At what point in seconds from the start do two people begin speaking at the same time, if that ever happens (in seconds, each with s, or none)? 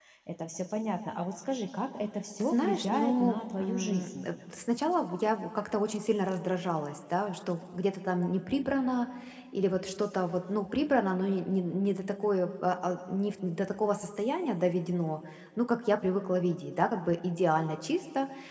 2.4 s